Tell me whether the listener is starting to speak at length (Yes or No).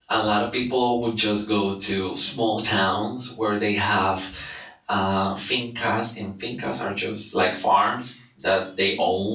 No